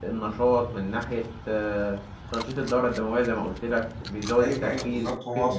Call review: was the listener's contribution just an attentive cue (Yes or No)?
No